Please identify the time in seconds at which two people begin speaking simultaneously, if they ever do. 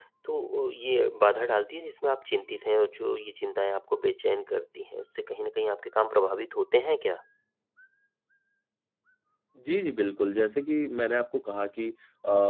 none

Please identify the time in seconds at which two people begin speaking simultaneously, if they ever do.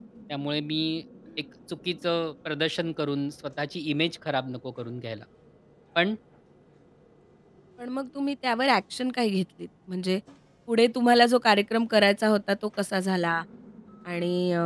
none

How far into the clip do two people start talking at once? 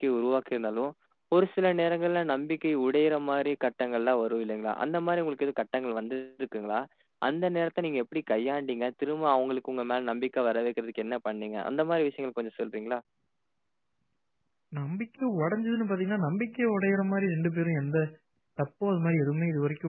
none

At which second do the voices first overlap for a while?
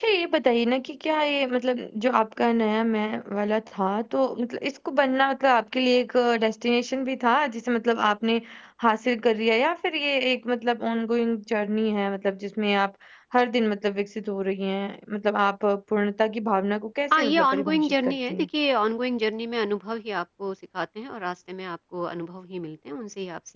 17.1 s

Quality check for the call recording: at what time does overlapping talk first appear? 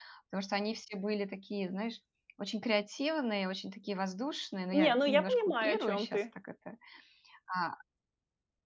4.7 s

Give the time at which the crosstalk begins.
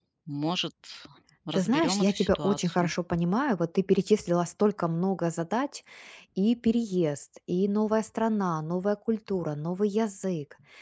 1.5 s

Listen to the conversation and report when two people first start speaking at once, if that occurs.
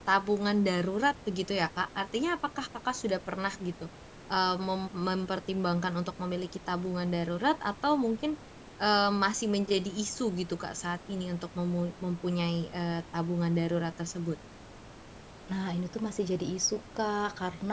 none

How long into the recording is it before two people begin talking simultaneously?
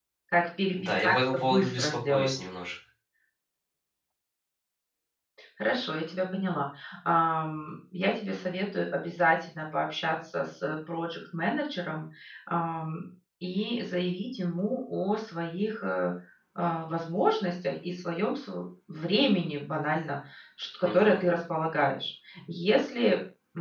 0.8 s

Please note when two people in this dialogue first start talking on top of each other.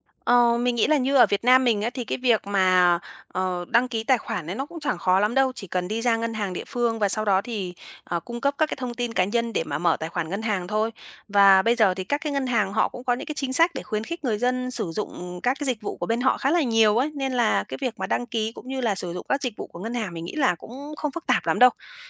none

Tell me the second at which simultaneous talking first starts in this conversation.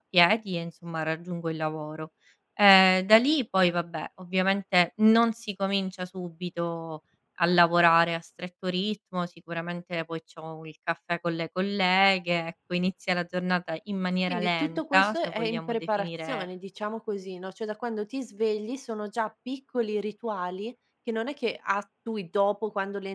14.3 s

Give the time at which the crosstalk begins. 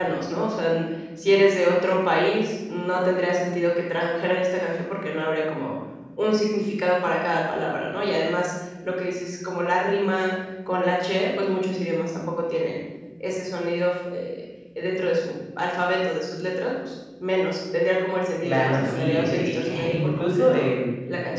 18.4 s

